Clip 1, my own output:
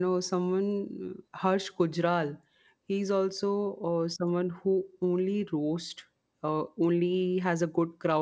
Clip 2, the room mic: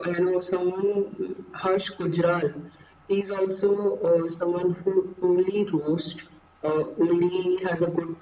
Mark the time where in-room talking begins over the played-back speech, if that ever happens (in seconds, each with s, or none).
none